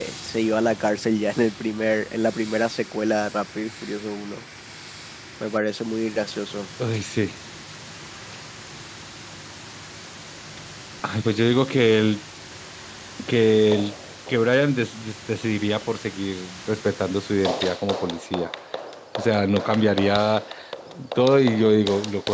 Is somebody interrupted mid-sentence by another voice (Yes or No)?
No